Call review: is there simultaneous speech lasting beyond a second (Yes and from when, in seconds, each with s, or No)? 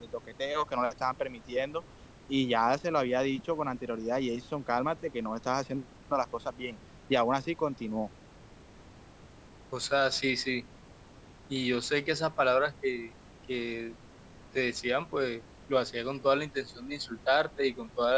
No